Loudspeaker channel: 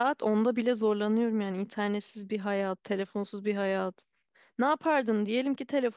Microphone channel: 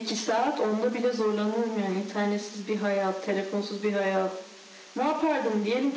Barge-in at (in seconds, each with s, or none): none